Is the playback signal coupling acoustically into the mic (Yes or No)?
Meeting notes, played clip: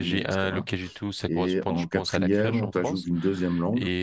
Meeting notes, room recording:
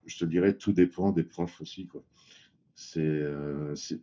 No